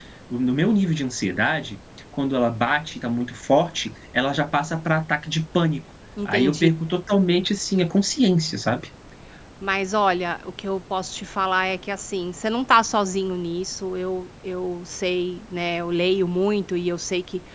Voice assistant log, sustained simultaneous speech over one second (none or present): none